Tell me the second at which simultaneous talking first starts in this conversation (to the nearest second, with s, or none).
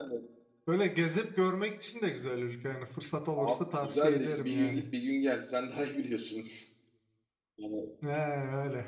3 s